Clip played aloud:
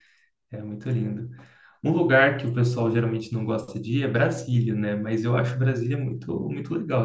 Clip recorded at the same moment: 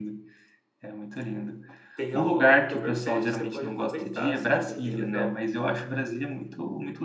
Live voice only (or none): tem a a Oktoberfest, você pode aproveitar, sabe? É bem legal.